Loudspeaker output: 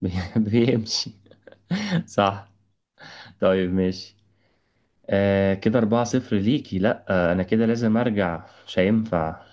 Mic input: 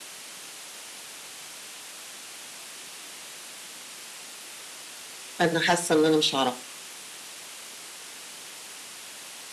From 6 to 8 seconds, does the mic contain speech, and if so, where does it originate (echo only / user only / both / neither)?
user only